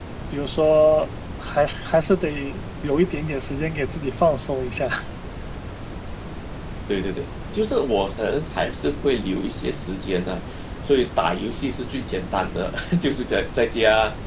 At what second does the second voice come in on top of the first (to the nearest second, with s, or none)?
none